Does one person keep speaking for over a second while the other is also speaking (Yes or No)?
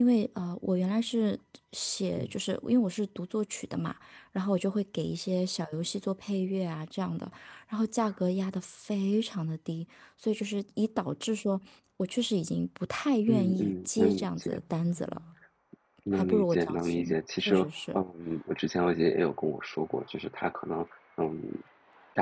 Yes